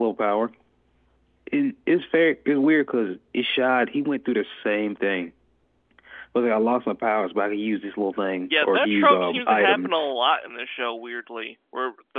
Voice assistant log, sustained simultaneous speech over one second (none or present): present